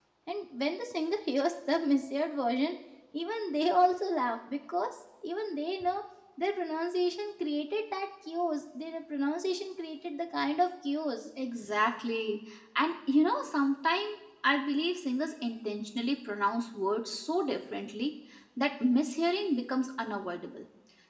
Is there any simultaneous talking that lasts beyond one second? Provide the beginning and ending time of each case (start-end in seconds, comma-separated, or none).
none